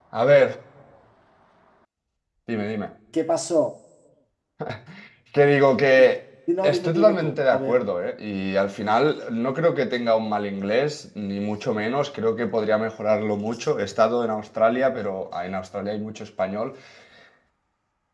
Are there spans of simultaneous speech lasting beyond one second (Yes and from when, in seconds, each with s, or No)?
Yes, from 6.6 s